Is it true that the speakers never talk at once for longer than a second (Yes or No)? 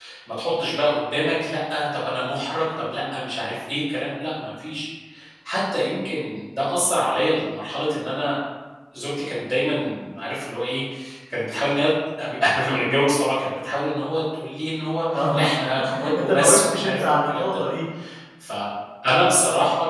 No